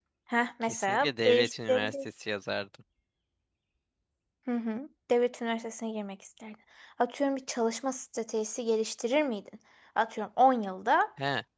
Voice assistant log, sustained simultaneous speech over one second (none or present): present